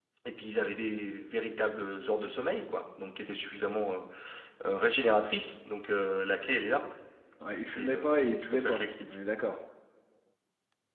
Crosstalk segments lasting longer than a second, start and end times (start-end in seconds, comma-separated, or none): 7.7-9.2